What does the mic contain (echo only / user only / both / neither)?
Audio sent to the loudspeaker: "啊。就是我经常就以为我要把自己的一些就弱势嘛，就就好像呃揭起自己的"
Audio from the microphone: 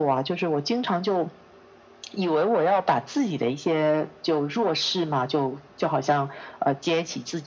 echo only